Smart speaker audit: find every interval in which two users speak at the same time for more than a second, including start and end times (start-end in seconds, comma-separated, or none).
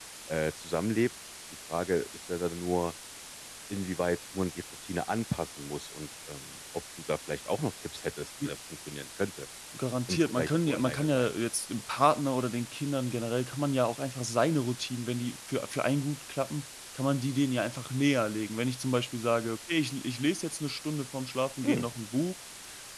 10.1-11.3